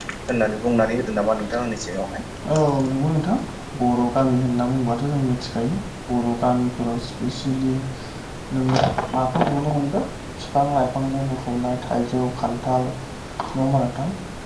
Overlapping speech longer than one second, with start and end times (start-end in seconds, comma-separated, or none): none